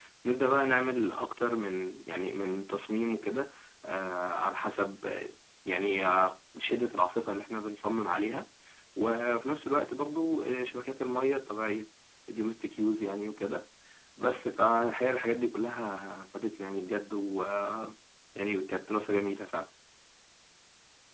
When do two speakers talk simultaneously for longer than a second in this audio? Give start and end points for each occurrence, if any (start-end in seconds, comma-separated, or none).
none